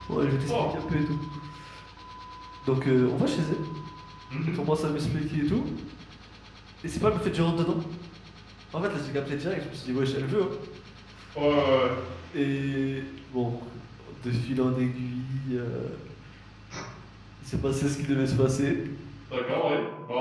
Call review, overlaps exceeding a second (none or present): none